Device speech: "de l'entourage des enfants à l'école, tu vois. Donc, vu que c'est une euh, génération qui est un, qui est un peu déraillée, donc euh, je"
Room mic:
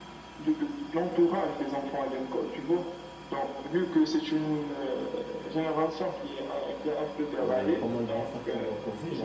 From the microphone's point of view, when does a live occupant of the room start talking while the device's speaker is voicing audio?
7.4 s

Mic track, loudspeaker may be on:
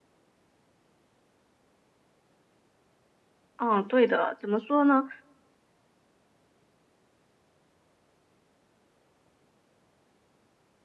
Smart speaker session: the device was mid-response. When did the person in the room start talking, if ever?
3.6 s

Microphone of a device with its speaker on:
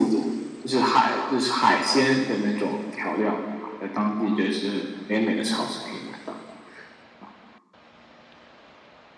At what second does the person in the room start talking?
none

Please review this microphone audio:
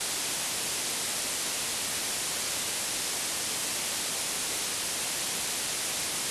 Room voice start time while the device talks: none

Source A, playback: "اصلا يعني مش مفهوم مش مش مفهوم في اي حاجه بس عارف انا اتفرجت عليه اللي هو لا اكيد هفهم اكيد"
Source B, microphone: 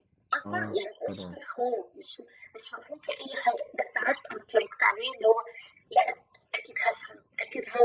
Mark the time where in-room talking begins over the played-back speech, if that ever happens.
0.5 s

